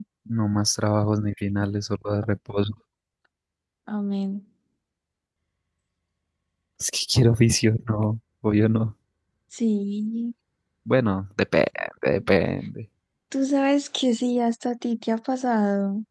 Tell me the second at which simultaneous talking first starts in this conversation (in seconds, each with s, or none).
none